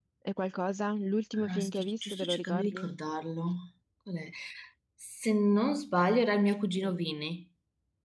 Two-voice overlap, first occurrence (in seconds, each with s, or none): 1.3 s